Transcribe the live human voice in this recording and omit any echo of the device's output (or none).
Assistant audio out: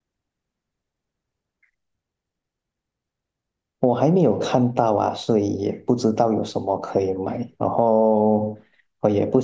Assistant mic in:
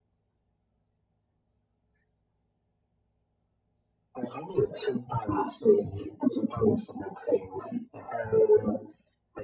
none